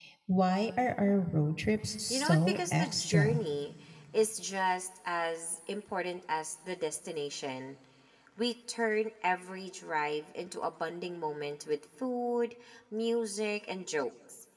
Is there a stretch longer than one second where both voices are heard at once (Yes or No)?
Yes